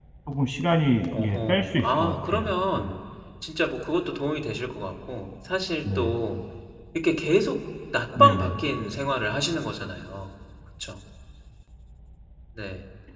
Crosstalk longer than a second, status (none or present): present